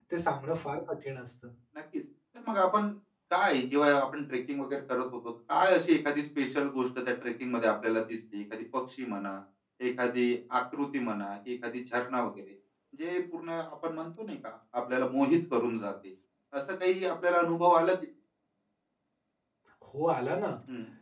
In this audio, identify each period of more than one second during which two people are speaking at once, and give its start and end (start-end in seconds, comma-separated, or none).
none